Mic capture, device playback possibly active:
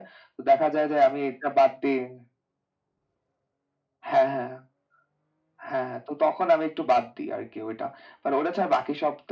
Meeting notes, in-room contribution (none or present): none